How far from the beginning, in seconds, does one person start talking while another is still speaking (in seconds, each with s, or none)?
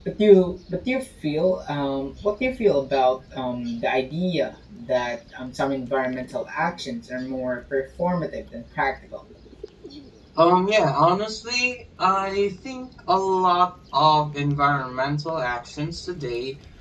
none